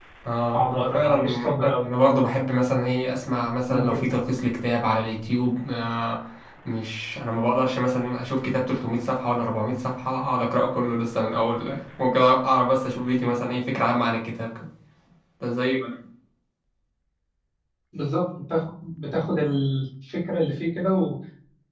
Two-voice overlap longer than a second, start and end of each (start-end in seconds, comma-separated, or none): 0.5-1.8